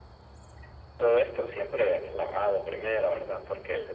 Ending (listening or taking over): listening